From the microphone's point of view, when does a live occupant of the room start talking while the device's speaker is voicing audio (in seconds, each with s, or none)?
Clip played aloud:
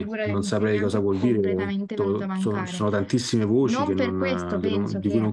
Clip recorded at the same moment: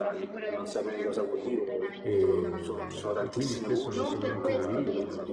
2.0 s